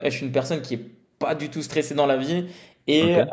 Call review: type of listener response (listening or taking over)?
listening